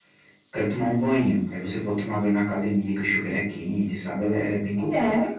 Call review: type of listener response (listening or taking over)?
taking over